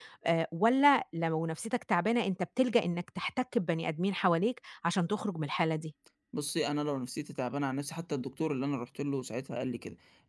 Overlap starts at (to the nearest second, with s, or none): none